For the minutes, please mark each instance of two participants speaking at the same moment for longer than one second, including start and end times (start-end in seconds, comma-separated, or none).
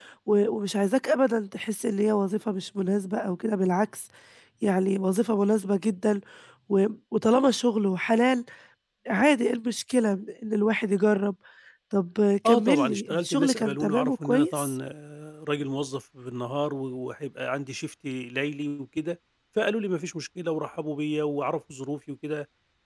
12.5-14.8